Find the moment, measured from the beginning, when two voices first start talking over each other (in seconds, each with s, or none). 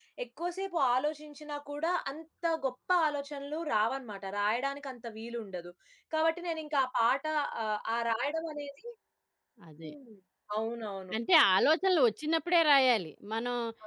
none